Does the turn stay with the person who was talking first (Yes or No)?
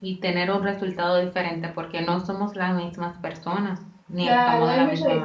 No